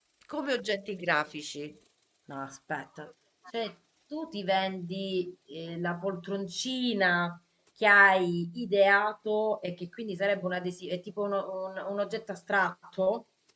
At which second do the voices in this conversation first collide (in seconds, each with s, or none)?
none